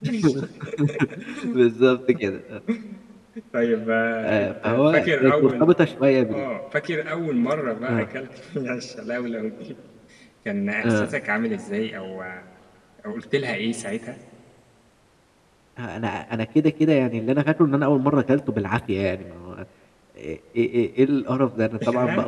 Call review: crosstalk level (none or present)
present